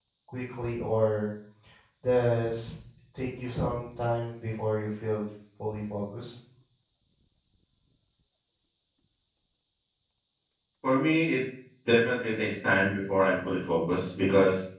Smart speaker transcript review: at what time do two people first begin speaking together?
none

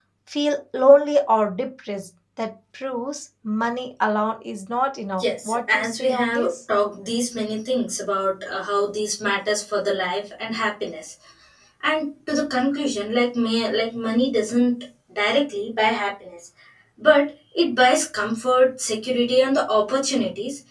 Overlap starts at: 5.2 s

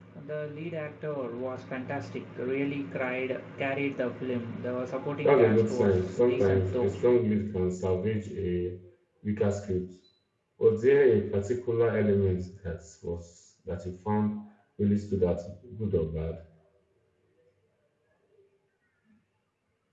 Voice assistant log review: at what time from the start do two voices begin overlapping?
5.2 s

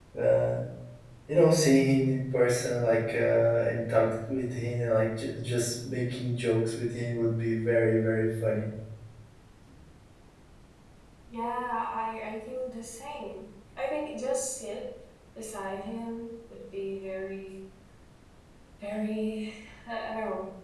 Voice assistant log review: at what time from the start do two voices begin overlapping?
none

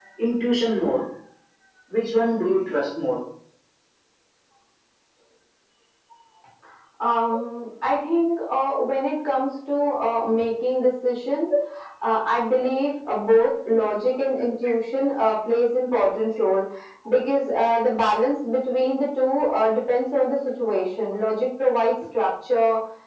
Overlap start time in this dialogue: none

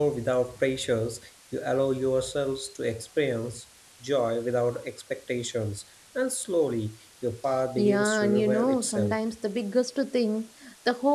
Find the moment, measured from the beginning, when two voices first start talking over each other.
7.8 s

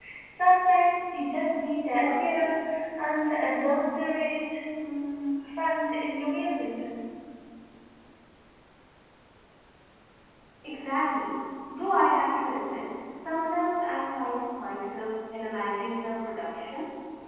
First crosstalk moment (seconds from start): none

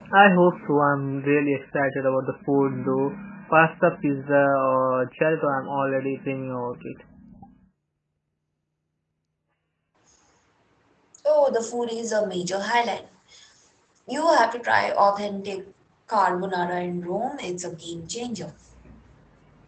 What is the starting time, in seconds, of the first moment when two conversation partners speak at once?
none

